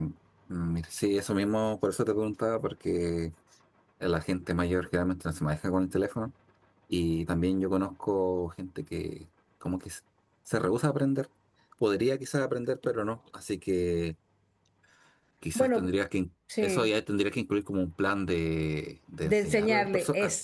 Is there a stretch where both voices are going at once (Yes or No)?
Yes